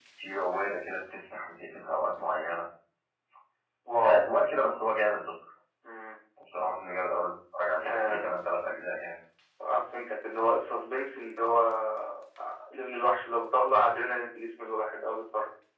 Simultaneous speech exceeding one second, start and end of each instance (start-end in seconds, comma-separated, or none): none